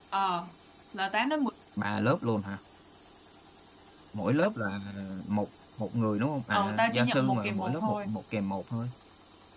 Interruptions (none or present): present